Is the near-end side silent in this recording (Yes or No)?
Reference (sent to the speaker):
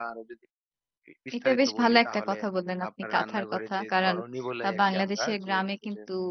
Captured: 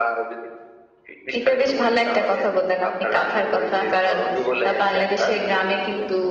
Yes